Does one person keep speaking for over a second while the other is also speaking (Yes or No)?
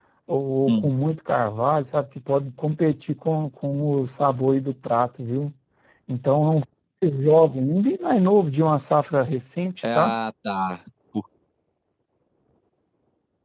No